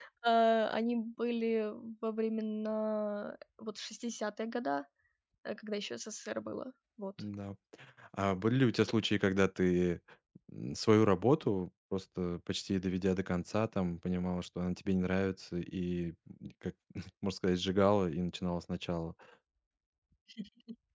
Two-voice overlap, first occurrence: none

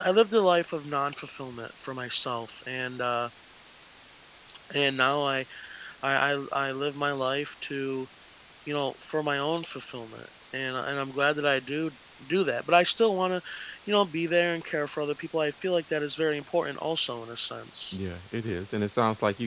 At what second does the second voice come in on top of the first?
none

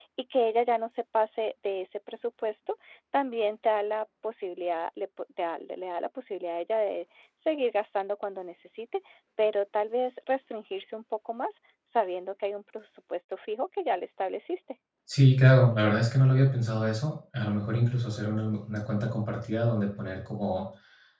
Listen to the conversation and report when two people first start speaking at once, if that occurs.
none

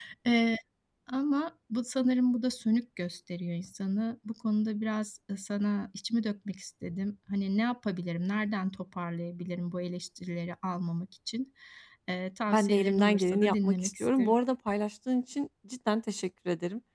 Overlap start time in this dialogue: 12.5 s

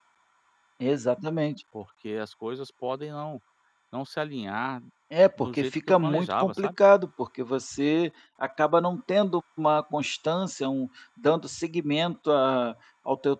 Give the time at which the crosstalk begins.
5.4 s

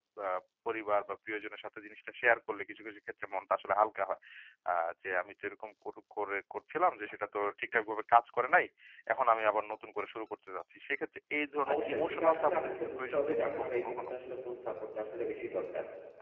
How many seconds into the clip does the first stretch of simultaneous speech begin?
11.6 s

